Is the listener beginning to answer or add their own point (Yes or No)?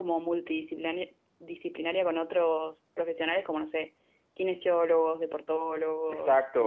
Yes